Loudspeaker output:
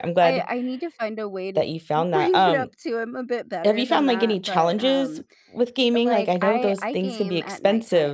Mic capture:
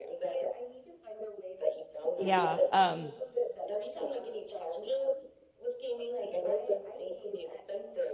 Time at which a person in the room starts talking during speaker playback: 2.2 s

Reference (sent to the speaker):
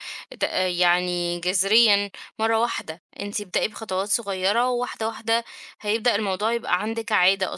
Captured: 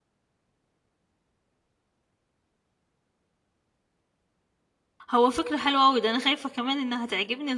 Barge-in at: 5.1 s

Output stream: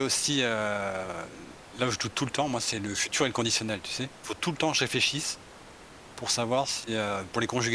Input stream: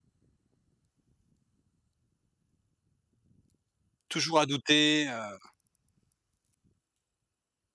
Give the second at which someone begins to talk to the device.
4.1 s

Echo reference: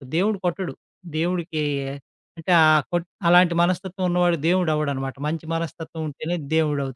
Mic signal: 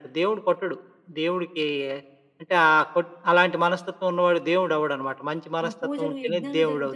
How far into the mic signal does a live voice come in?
5.6 s

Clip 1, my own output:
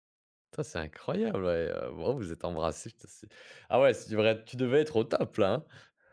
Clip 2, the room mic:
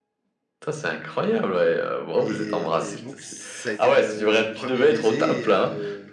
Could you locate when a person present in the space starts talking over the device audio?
2.2 s

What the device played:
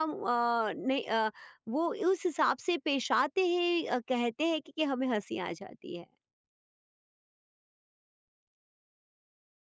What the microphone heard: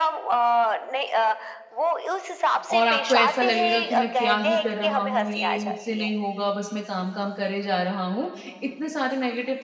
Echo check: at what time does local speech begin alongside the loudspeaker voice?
2.7 s

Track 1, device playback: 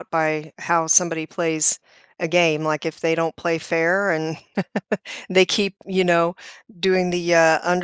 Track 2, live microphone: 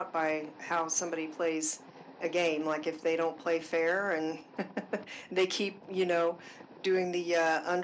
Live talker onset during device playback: none

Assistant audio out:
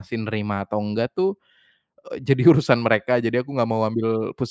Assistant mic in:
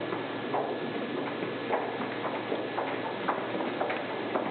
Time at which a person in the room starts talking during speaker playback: none

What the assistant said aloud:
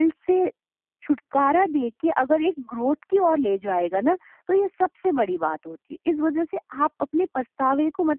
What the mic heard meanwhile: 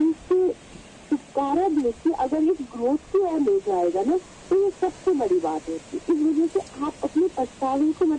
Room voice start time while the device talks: none

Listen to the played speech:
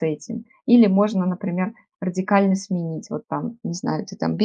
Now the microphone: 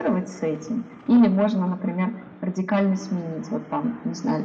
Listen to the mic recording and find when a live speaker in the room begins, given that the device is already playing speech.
none

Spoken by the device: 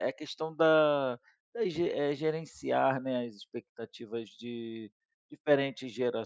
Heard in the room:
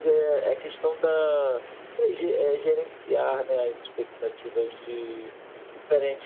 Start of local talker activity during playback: none

